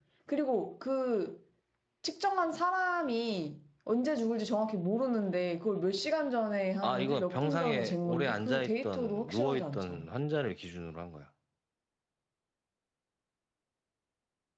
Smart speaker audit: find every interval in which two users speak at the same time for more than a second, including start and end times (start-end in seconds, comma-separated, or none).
6.8-10.1